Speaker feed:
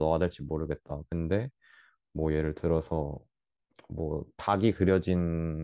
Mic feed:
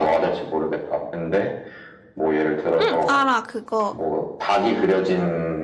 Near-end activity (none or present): present